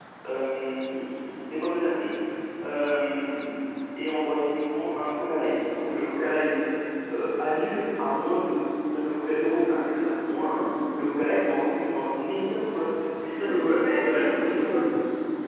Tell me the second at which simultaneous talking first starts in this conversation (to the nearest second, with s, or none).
13 s